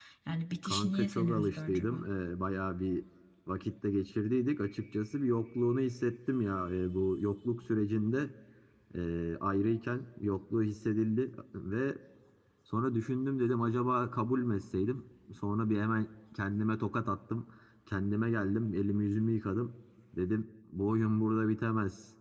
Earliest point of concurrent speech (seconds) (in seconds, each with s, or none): 0.6 s